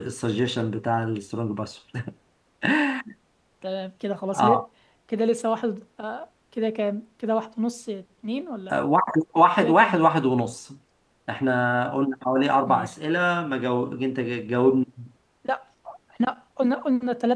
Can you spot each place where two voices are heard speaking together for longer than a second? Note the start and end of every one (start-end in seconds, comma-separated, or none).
none